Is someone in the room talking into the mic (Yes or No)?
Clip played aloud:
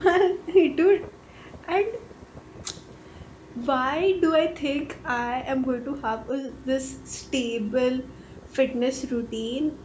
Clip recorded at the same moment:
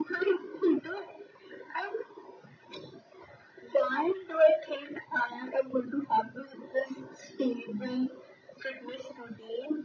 No